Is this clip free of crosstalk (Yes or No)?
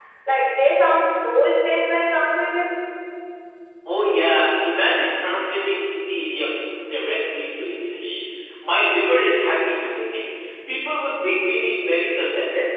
Yes